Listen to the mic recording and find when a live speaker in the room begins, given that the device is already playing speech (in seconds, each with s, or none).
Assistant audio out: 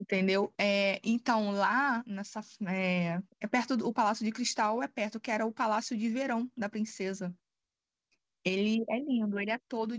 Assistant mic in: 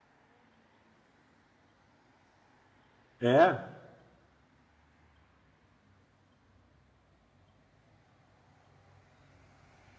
3.2 s